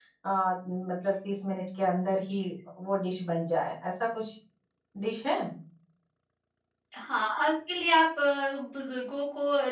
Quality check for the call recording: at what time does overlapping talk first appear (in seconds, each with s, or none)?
none